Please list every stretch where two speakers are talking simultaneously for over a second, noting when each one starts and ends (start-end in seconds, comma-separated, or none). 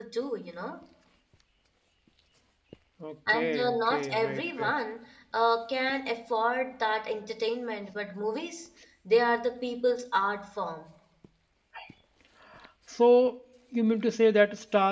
3.3-4.7